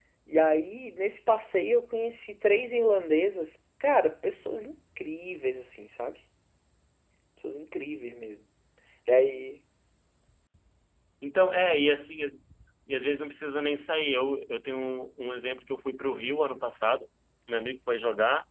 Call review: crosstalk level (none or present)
none